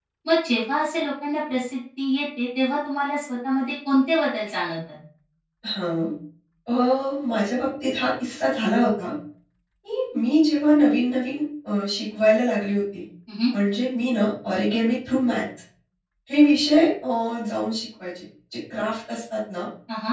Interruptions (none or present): none